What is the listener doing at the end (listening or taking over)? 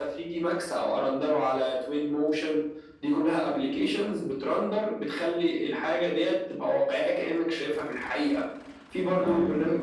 listening